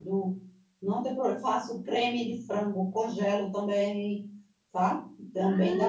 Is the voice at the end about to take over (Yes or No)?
No